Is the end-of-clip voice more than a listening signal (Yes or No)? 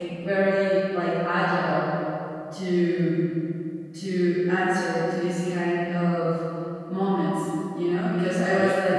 No